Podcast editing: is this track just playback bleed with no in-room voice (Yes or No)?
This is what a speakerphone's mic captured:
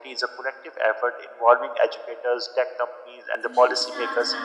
No